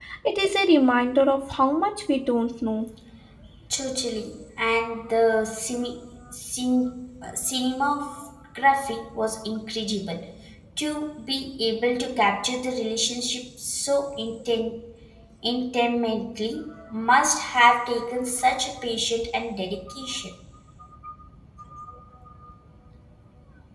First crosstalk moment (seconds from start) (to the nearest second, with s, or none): none